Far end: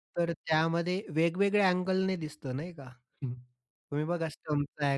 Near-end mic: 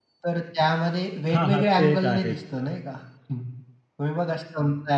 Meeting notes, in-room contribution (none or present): present